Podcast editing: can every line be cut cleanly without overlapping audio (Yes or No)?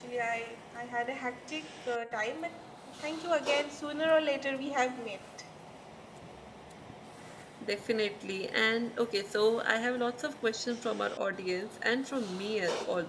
Yes